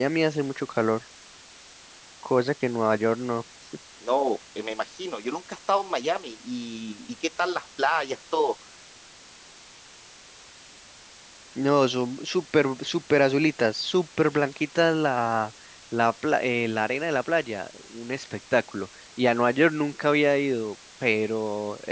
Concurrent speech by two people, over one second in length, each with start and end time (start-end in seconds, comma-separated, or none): none